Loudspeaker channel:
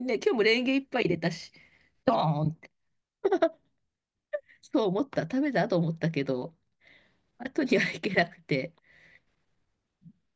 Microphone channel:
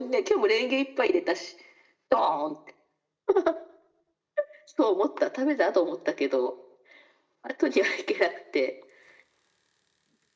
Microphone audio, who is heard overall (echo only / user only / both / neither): echo only